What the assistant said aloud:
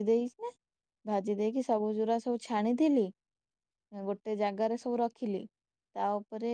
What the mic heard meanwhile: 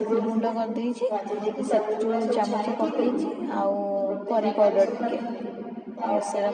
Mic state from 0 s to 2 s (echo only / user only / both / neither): both